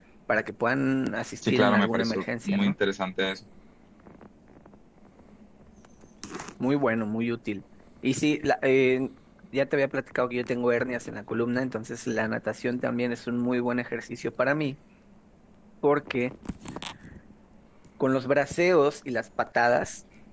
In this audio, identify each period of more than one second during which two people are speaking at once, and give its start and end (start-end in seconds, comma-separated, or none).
1.5-2.7